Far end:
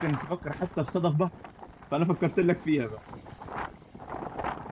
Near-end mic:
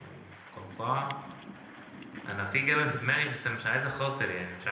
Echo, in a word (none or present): none